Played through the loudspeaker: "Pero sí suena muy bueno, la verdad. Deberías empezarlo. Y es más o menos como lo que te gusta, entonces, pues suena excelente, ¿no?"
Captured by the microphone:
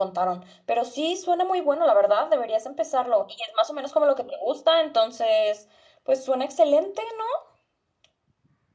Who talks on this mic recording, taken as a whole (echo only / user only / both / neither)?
echo only